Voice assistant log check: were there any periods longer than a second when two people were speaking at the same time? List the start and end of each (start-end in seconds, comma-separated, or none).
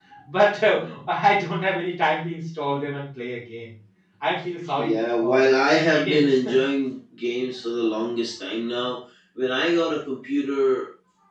4.8-6.4